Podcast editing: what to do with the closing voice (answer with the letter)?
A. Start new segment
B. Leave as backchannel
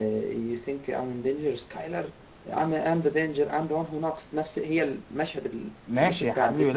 A